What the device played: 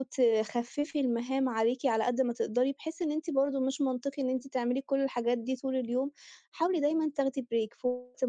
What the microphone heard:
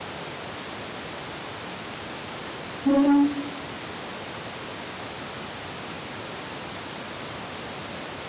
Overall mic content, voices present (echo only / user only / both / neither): user only